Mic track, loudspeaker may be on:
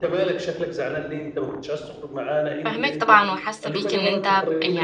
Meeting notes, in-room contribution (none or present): present